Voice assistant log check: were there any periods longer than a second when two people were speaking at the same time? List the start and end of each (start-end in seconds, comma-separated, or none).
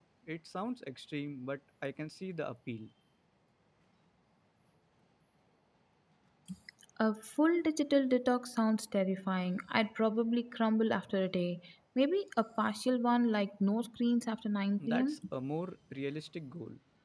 none